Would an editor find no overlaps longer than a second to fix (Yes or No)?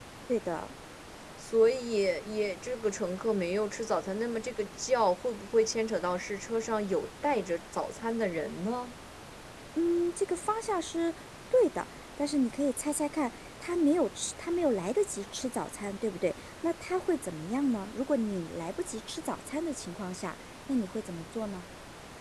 Yes